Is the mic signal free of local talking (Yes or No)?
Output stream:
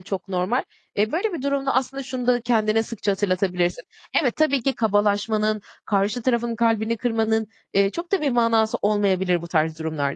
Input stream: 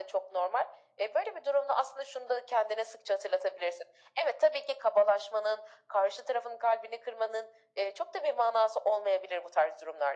Yes